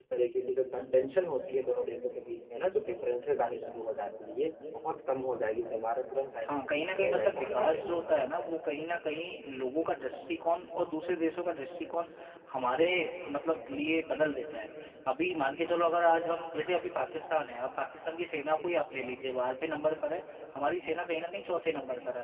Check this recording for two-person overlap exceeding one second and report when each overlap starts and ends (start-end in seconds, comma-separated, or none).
6.5-8.1